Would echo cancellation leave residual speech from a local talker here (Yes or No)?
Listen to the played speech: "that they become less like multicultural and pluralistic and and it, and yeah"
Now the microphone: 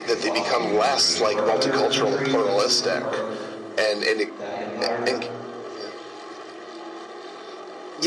Yes